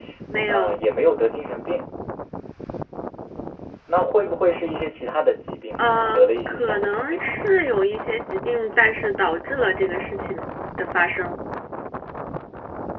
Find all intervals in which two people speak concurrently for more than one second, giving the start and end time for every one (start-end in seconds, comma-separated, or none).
5.8-7.2